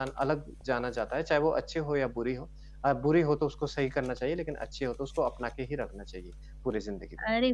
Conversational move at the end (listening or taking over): taking over